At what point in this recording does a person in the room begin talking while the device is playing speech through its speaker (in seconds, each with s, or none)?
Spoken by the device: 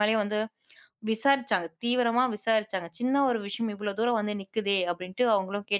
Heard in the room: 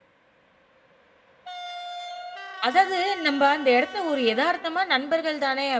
2.7 s